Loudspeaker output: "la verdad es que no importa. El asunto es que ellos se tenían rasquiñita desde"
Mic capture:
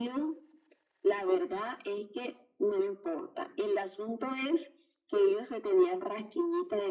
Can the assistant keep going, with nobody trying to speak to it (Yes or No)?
Yes